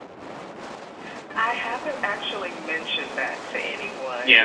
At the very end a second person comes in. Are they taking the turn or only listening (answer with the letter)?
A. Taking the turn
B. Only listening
A